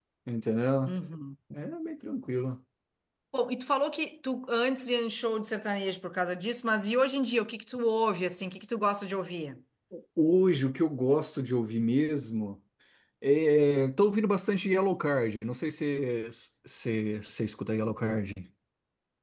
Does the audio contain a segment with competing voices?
No

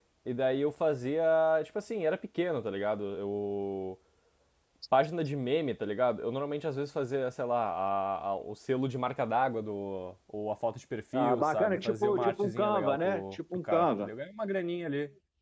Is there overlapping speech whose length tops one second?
Yes, from 11.1 s

